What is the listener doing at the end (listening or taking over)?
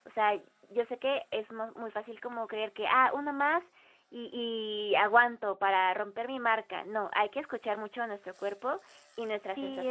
taking over